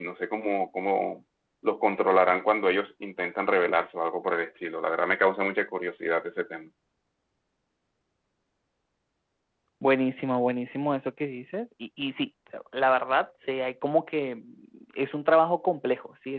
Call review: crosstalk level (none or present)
none